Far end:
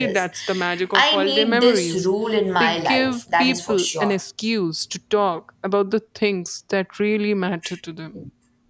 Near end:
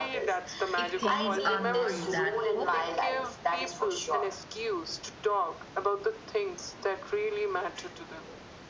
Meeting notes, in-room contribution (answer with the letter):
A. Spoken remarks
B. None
A